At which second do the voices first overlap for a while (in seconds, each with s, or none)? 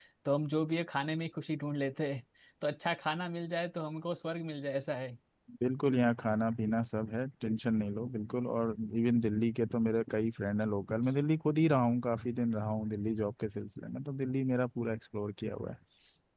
none